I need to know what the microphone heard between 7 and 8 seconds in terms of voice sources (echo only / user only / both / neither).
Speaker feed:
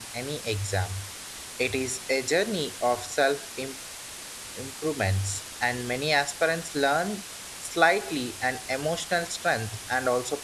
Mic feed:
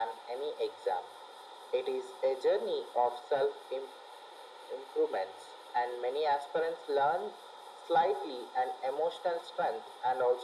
echo only